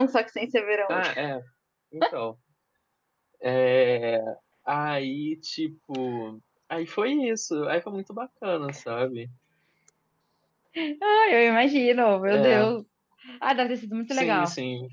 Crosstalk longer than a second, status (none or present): none